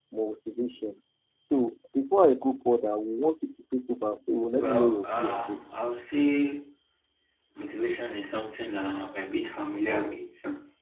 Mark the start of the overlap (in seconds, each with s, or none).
4.6 s